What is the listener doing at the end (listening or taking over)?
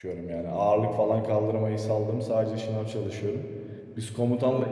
listening